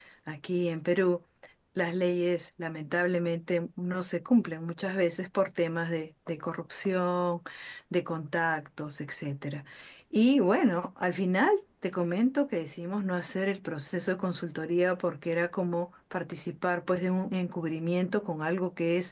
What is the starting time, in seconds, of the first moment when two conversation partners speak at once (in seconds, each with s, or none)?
none